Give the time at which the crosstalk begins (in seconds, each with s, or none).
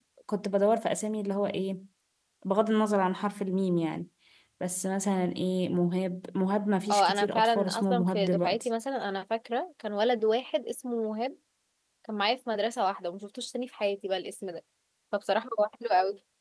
6.9 s